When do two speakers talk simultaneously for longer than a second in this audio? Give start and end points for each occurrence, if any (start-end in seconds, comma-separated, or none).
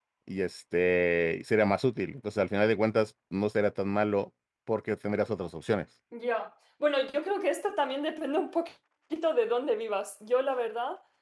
none